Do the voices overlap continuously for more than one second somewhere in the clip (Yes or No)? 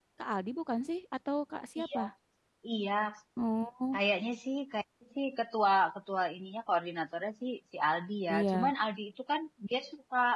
No